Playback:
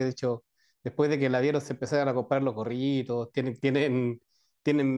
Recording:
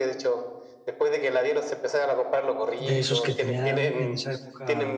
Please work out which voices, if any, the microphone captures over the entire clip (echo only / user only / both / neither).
both